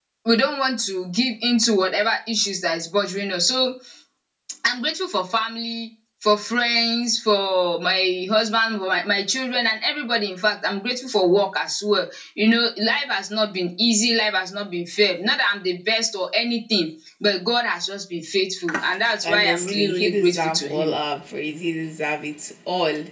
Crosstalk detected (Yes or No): Yes